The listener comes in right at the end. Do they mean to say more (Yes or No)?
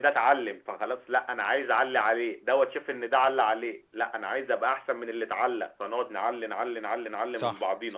Yes